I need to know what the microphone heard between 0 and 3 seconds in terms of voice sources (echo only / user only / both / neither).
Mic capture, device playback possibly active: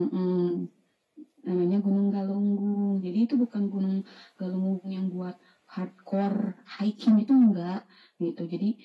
echo only